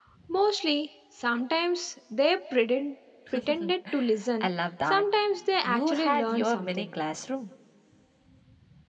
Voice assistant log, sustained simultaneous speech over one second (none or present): present